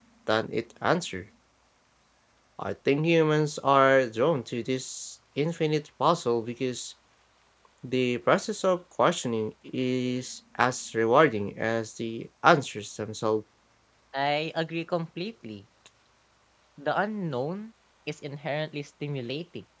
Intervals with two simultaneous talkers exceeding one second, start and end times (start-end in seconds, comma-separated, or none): none